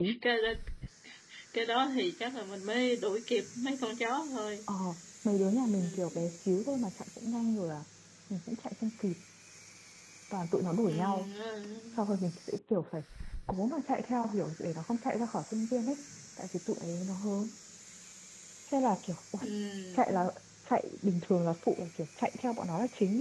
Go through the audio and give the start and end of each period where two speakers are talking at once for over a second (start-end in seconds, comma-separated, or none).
none